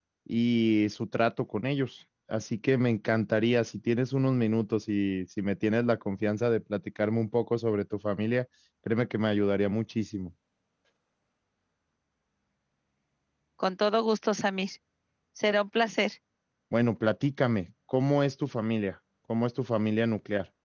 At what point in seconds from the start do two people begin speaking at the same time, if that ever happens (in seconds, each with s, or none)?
none